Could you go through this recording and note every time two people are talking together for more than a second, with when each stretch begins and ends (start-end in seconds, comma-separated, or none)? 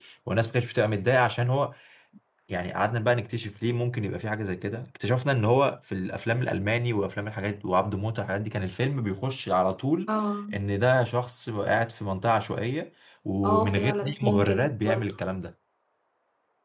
13.4-15.1